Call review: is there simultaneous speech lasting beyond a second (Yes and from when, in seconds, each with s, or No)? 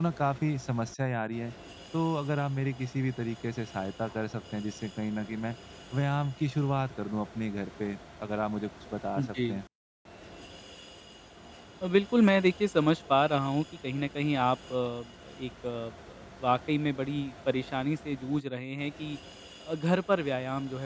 No